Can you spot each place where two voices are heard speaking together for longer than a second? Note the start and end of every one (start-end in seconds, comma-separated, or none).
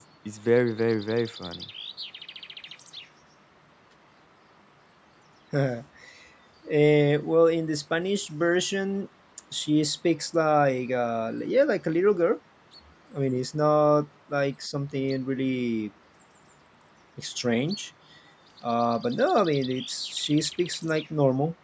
none